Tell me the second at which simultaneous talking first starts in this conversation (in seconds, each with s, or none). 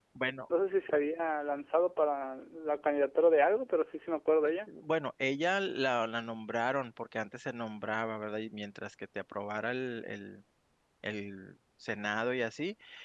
none